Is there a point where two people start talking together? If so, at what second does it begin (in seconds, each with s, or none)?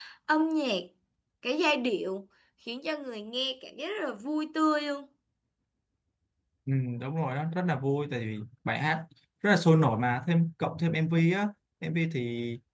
none